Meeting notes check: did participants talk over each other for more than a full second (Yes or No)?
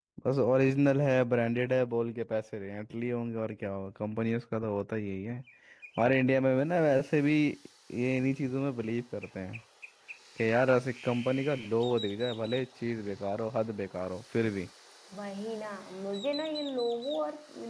No